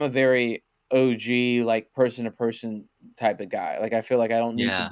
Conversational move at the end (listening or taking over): listening